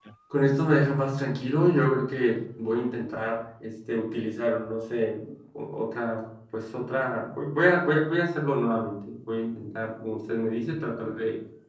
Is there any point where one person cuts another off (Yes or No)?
No